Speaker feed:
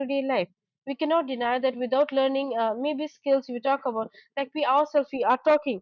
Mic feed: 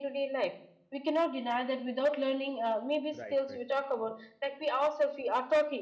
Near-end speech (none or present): present